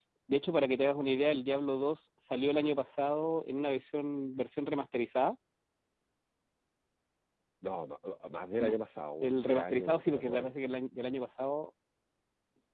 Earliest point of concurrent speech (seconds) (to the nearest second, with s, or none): 9 s